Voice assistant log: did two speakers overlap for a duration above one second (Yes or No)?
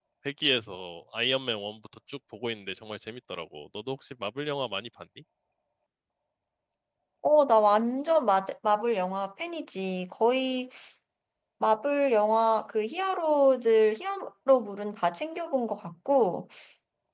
No